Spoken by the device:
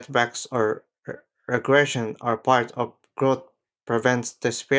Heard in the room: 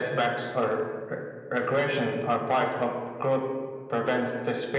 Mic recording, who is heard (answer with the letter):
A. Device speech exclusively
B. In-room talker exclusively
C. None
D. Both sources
A